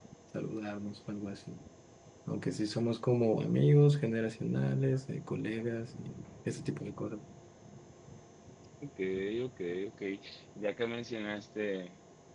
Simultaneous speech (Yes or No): No